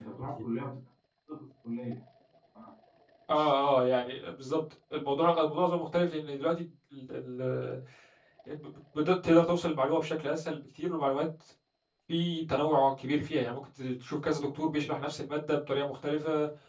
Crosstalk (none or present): none